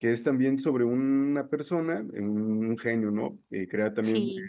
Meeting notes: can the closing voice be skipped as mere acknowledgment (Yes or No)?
Yes